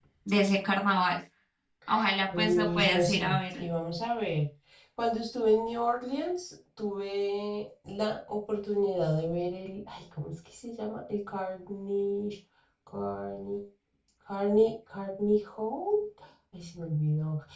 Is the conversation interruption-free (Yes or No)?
No